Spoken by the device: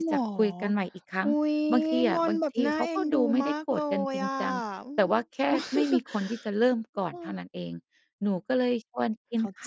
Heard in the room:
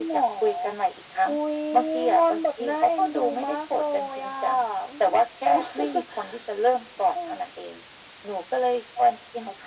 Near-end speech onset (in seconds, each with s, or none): none